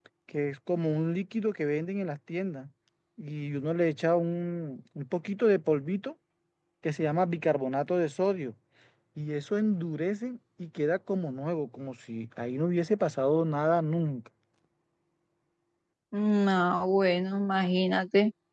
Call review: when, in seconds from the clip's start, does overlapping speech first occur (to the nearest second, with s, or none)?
none